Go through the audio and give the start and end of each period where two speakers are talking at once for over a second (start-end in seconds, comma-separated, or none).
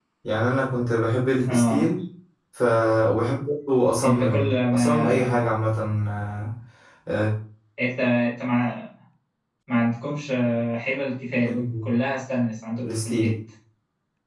4.0-5.4